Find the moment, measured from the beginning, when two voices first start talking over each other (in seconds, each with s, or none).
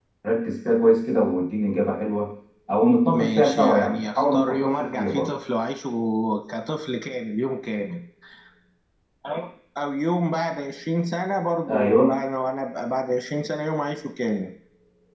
3.1 s